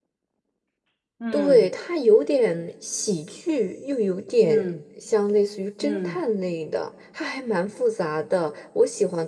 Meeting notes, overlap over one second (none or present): none